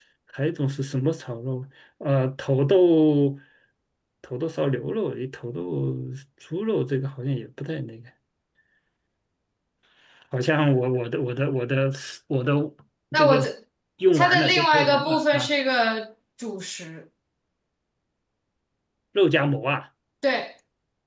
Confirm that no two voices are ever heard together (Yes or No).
No